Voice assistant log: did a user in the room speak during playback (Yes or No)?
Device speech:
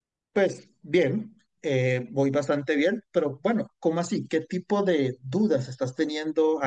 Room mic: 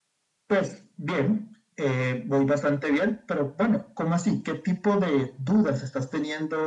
No